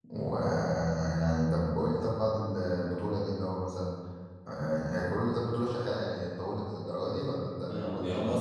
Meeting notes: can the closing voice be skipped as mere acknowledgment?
No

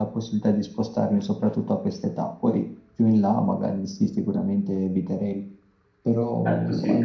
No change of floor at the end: No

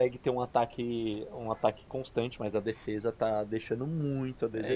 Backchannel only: No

